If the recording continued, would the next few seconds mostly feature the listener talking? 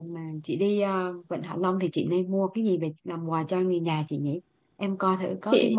No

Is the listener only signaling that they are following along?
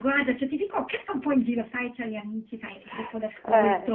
Yes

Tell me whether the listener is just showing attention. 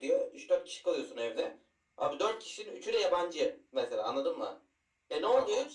Yes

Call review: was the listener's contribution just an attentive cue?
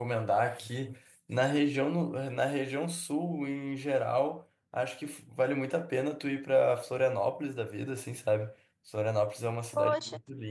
Yes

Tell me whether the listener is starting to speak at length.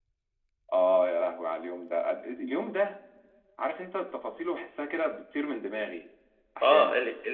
Yes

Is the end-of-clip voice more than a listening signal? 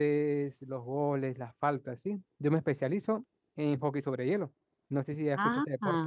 Yes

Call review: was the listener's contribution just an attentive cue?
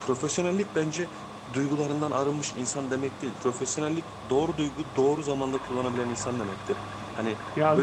Yes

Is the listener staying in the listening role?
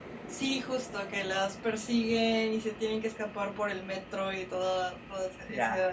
No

